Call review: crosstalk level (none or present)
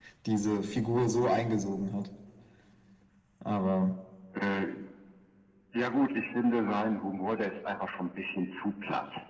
none